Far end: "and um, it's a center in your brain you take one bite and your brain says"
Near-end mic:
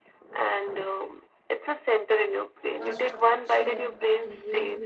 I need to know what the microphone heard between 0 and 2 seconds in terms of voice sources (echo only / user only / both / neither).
echo only